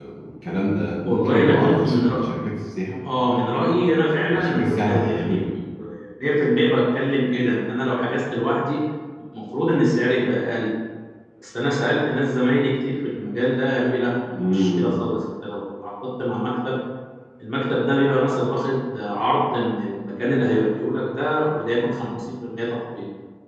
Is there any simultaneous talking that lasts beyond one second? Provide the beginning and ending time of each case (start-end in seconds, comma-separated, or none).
1.0-2.2, 4.2-5.5